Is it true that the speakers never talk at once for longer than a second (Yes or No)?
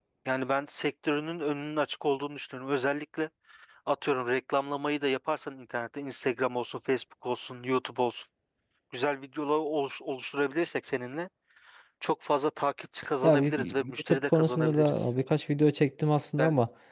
No